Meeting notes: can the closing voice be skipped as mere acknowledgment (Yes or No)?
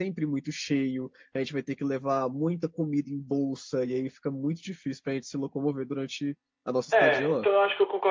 No